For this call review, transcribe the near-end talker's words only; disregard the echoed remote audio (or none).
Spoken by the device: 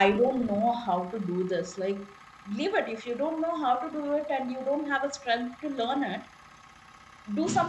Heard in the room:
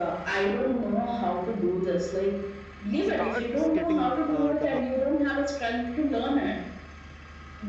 starts getting uh, developed